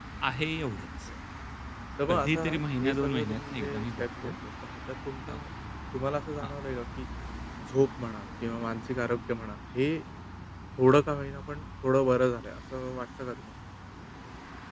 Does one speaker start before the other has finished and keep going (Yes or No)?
Yes